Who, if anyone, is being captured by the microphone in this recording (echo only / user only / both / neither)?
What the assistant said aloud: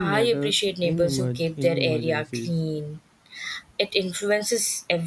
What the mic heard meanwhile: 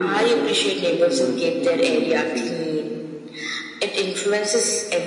echo only